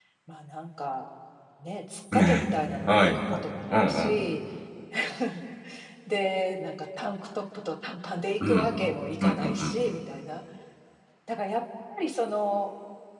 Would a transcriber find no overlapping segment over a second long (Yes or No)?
No